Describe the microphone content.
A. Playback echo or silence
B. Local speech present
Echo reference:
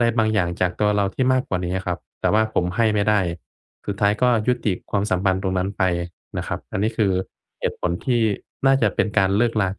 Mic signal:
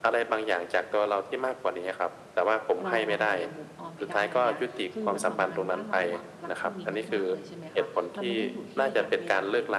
B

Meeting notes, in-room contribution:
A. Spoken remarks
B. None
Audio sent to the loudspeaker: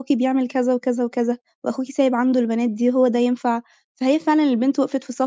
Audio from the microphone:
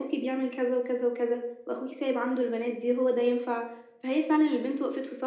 B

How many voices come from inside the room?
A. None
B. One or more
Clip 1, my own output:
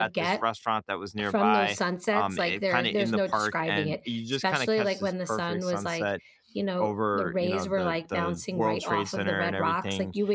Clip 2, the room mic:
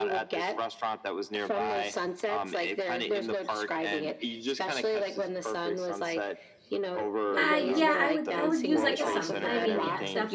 B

